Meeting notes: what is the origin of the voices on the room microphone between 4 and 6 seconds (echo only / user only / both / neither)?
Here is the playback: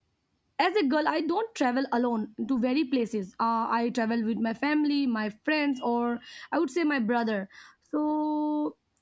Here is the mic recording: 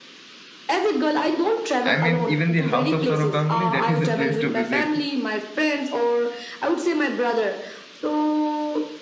both